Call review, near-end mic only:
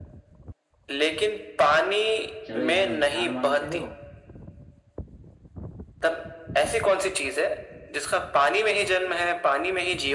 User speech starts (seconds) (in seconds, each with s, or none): 2.5 s